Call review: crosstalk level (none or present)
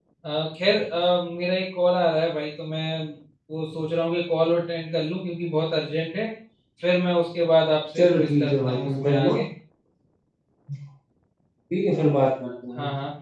present